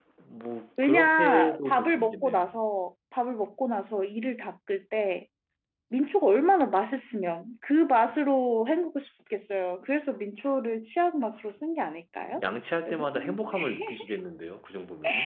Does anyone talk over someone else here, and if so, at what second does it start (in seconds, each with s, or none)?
0.8 s